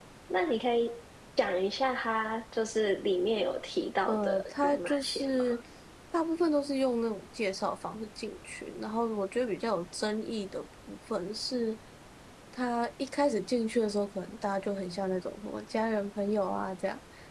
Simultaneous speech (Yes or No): Yes